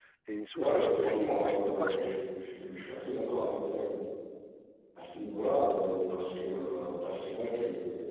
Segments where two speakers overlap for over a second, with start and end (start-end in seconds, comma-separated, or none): 0.6-2.1